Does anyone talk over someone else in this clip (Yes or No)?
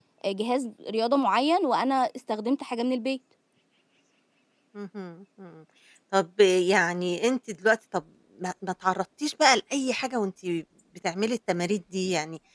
No